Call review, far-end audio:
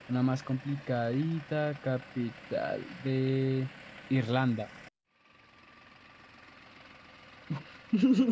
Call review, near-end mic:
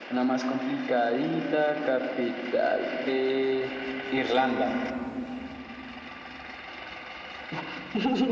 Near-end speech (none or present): none